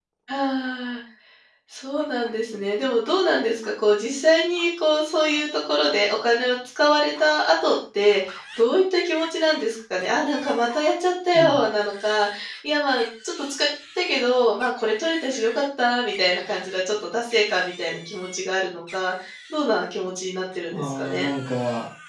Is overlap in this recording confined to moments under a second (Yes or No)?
Yes